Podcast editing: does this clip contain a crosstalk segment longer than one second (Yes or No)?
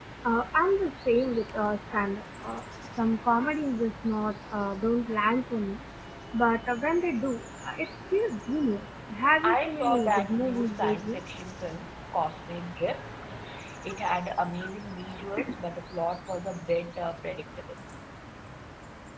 Yes